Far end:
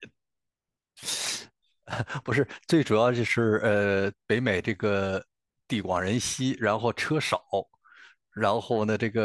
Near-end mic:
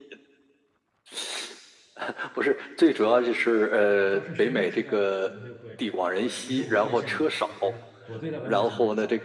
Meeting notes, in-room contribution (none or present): present